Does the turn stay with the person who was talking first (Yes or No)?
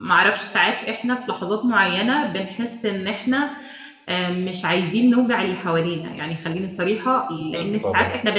Yes